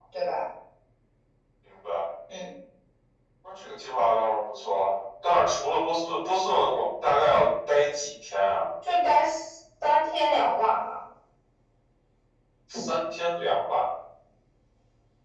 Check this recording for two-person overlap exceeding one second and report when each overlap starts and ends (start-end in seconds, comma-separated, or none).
none